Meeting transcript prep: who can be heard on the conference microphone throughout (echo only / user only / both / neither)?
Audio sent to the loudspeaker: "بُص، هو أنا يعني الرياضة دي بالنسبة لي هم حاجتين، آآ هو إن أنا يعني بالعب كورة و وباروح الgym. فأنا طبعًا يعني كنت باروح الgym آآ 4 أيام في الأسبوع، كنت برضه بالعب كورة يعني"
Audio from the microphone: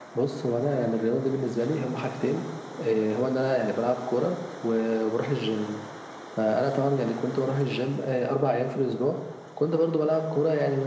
echo only